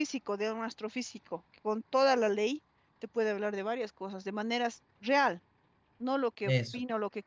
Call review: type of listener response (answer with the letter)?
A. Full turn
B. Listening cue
B